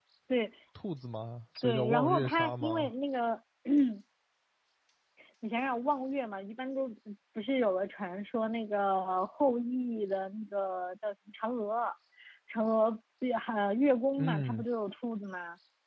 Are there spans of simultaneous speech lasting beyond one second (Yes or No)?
Yes